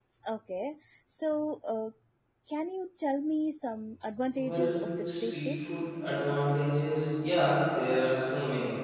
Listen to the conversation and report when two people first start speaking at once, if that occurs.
4.4 s

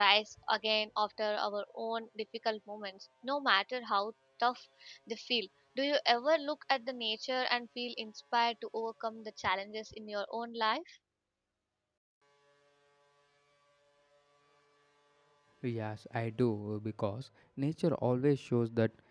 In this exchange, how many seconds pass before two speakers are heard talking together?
none

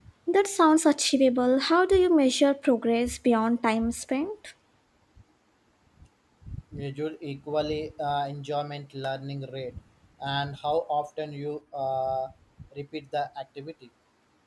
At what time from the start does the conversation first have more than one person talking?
none

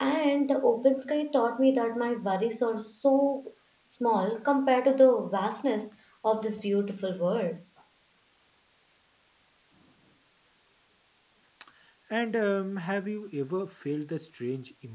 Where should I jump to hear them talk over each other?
none

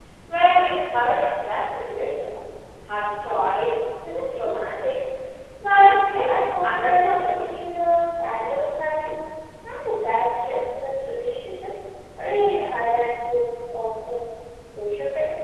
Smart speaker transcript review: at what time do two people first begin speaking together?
5.7 s

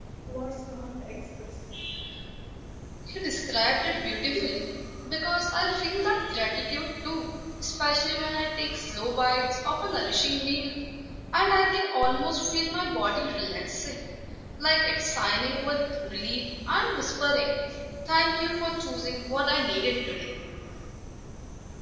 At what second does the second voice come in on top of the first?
none

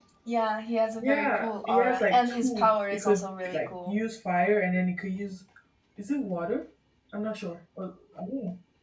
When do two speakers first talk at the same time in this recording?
1.0 s

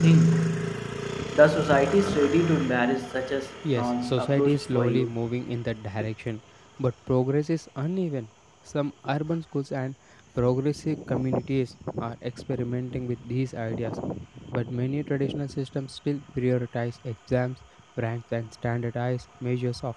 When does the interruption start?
3.6 s

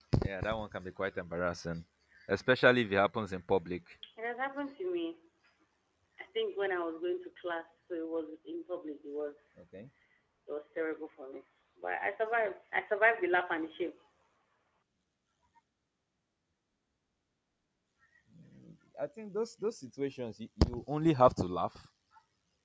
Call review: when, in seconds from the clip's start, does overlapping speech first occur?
none

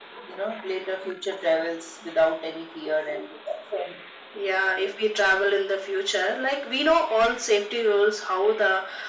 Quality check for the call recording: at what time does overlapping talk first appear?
none

